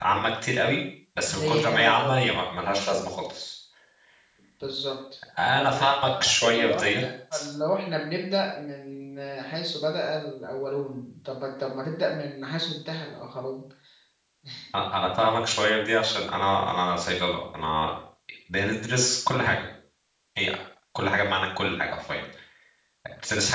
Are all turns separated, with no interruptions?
No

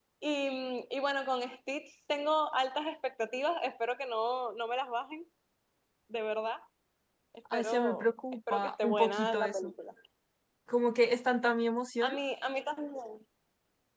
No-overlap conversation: No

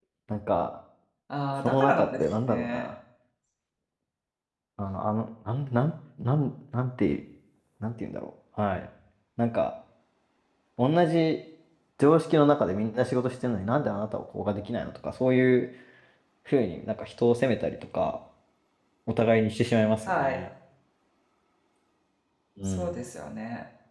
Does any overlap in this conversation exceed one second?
Yes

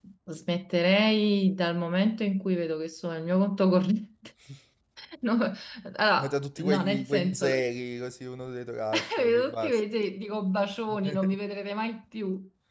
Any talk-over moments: Yes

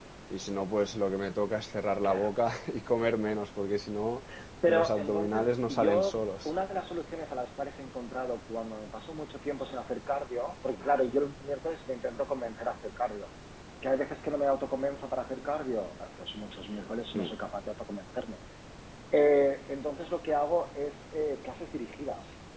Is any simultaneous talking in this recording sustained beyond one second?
Yes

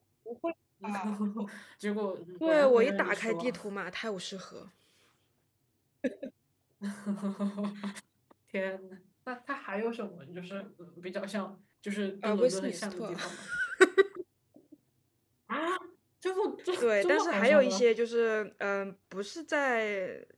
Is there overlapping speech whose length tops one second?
Yes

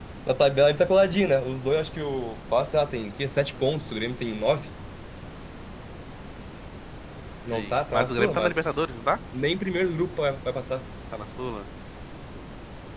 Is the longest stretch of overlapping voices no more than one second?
No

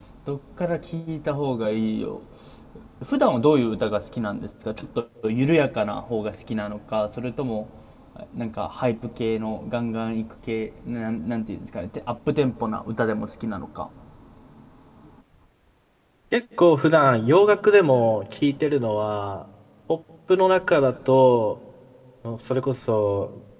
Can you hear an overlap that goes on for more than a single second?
No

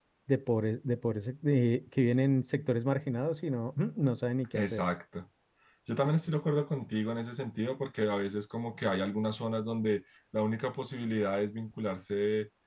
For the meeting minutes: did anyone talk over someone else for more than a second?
No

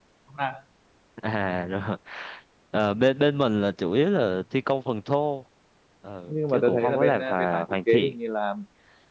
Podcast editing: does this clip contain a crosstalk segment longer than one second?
Yes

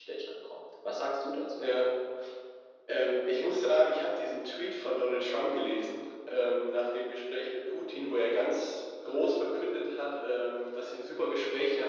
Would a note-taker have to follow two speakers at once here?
No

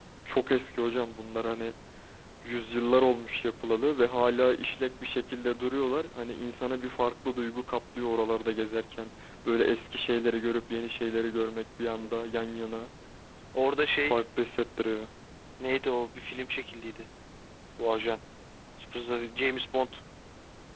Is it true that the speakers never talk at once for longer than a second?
Yes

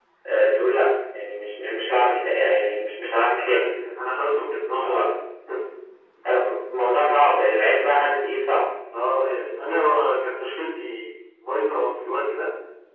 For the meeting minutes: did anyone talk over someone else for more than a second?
No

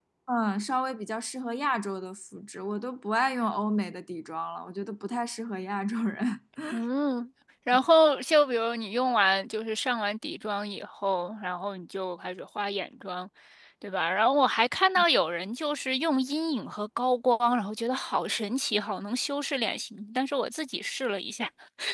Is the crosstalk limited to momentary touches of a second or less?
Yes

